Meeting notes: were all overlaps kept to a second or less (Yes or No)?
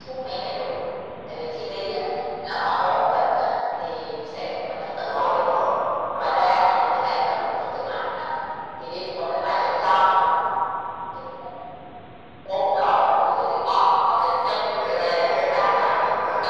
No